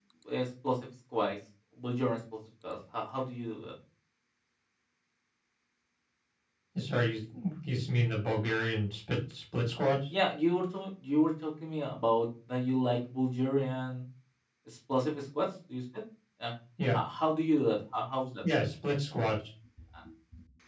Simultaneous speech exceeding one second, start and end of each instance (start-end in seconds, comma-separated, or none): none